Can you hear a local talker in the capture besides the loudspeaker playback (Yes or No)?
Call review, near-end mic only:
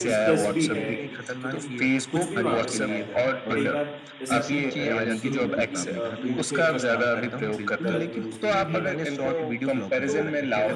Yes